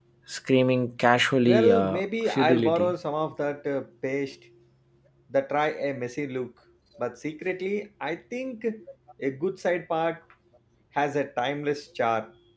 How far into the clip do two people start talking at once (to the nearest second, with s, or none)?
1 s